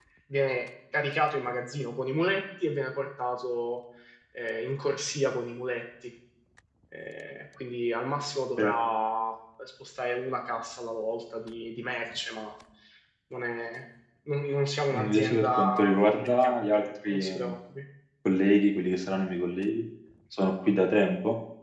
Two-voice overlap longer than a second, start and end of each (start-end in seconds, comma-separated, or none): 14.9-17.6